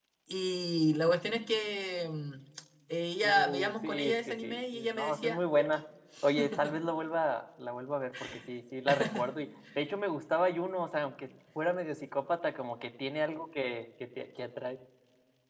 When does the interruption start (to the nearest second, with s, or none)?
3 s